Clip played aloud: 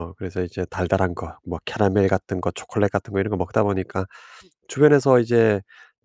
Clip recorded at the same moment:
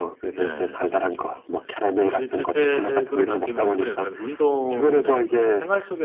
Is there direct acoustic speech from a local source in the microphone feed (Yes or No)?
Yes